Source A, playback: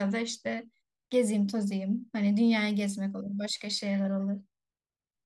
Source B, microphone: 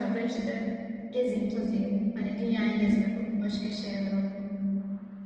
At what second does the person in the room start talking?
none

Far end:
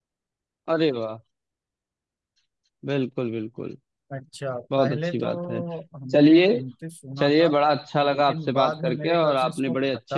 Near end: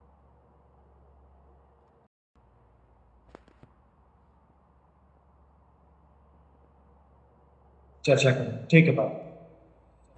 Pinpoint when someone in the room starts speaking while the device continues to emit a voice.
8 s

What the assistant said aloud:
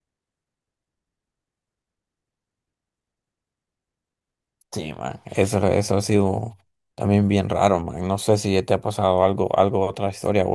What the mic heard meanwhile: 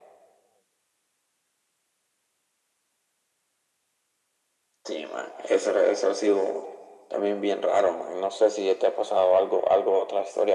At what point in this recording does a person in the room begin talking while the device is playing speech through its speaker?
none

